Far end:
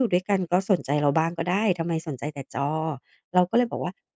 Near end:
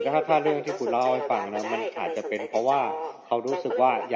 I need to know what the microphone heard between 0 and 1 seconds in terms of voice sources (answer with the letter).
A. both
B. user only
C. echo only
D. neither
A